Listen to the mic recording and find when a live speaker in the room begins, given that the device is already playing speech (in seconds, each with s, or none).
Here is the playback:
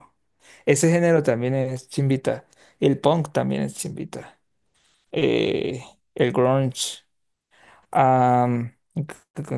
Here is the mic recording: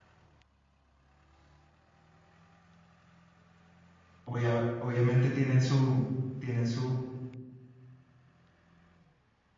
4.2 s